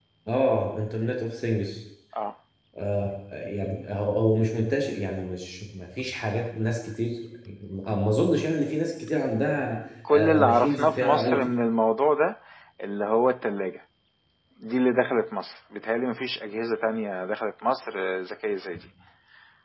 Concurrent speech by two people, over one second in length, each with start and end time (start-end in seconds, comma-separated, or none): 10.1-11.5